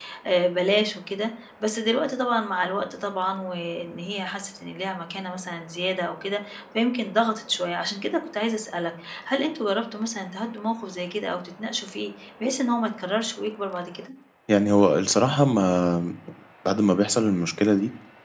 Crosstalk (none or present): none